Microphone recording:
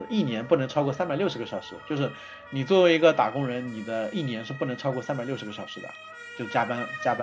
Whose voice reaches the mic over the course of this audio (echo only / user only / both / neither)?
user only